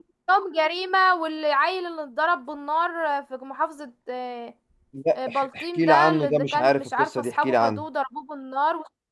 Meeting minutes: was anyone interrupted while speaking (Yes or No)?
Yes